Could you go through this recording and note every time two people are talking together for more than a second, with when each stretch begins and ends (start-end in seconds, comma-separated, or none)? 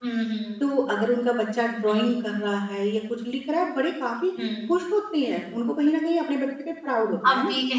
none